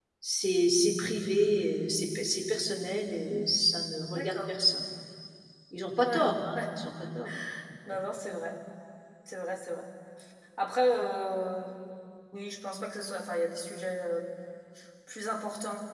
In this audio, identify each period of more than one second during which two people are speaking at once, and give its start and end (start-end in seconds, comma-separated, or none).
none